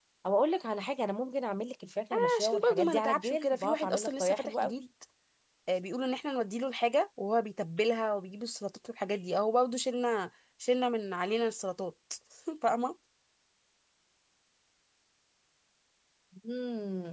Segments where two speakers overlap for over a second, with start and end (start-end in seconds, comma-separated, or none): 2.4-4.7